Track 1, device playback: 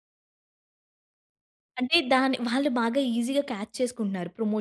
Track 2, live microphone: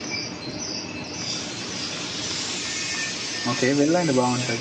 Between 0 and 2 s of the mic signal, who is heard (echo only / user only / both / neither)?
neither